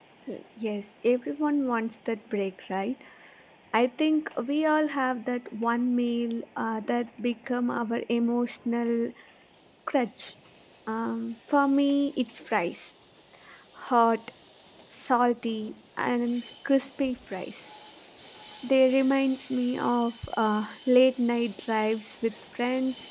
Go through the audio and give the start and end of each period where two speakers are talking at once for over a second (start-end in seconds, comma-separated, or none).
none